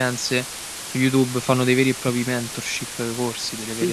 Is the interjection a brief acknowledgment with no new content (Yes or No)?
No